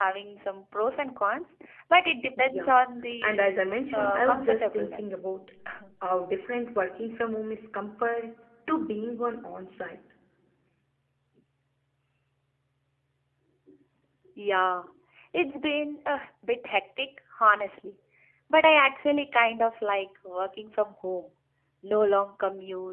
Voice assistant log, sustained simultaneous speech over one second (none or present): present